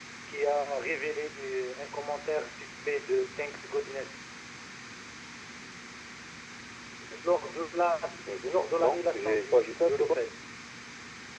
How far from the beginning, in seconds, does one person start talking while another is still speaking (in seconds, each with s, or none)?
8.4 s